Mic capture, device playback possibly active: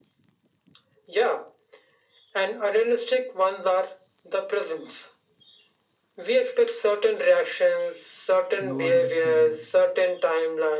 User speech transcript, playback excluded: lowering standards.

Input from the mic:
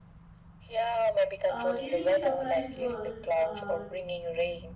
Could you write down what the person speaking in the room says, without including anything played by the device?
uh, giving a surprise world uh,

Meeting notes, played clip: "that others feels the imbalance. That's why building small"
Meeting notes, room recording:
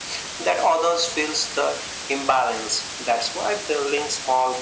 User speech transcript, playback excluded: none

